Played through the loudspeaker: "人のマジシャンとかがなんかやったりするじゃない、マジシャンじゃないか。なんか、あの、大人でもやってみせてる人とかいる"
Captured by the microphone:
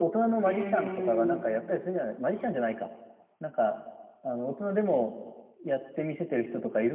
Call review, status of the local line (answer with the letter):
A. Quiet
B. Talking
B